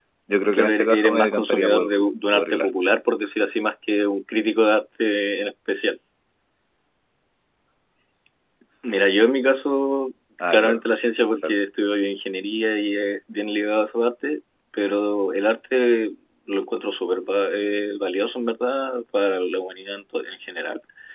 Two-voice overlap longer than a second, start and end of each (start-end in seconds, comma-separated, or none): 0.5-1.9